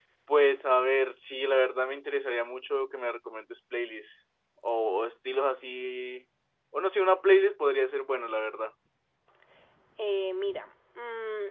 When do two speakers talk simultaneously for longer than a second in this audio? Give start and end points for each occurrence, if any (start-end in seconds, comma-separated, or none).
none